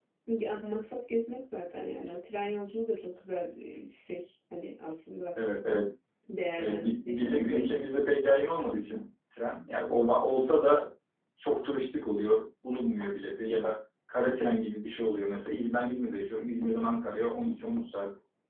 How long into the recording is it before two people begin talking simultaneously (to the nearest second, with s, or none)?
7 s